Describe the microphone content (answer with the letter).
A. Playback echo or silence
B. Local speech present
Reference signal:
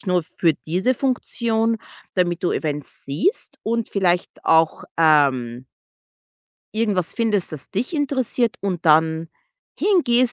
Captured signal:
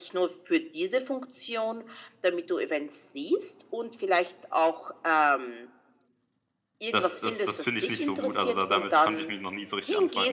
B